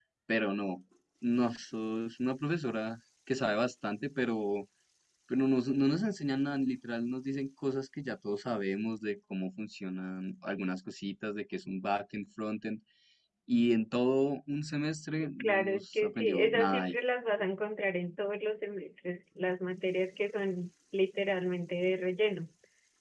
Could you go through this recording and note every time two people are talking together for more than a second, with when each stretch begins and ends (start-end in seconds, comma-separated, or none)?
15.4-16.9